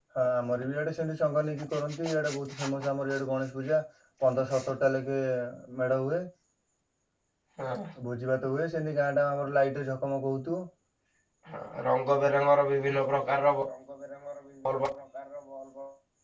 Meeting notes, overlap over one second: none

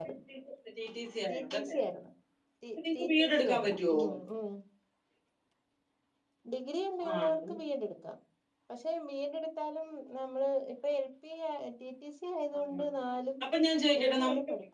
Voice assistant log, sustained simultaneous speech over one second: present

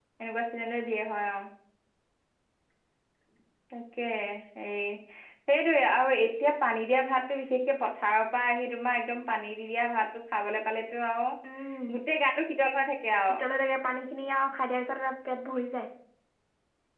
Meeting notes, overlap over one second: none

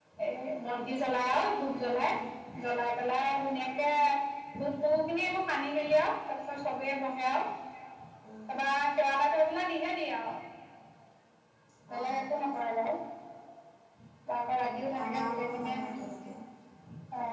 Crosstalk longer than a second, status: present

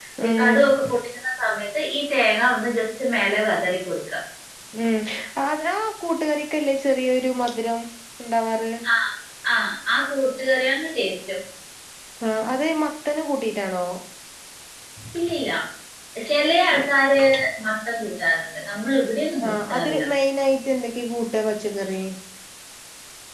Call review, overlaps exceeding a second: none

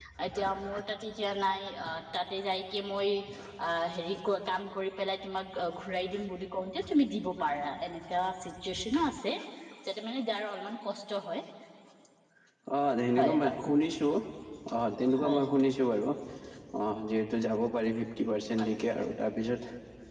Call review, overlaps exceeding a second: none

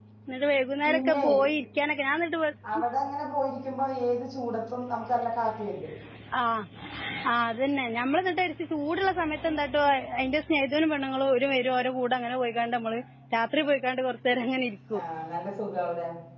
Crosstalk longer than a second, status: none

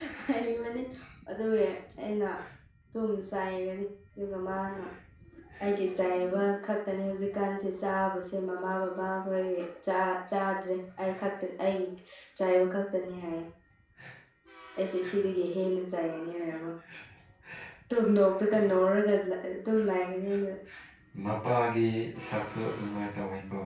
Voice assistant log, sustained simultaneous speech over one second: none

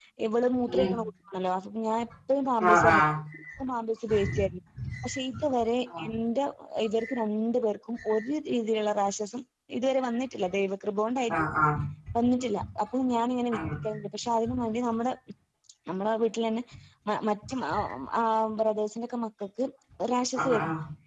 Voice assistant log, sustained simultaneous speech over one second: none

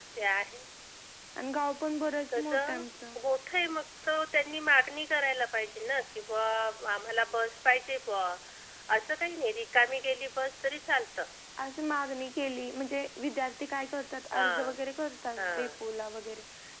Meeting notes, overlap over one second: none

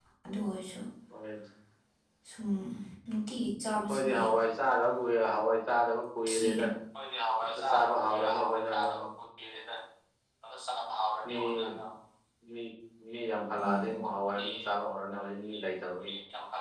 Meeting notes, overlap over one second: present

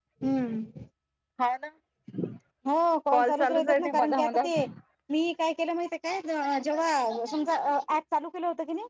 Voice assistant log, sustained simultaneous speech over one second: present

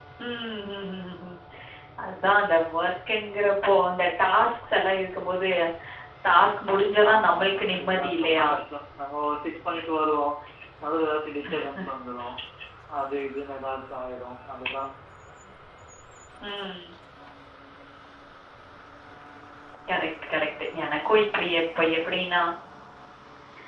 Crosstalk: present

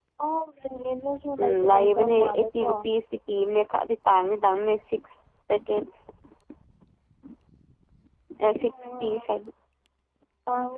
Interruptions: present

